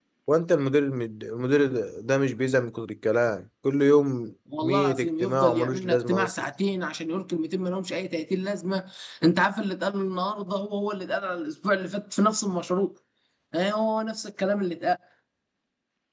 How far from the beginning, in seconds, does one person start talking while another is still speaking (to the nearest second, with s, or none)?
4 s